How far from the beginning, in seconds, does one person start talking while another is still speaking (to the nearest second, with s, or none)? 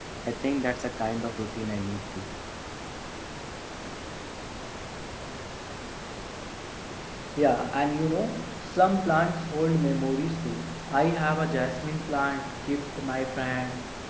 none